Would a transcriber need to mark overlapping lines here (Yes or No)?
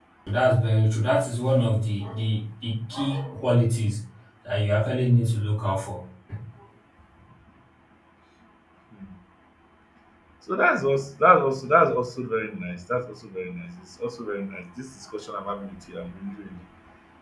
No